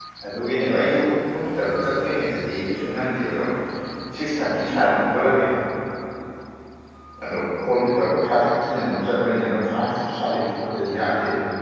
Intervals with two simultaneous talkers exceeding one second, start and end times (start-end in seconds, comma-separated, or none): none